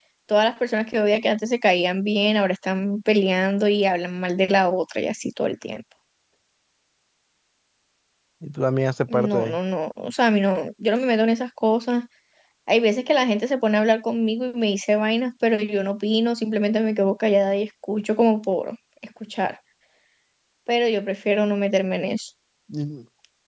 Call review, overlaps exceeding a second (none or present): none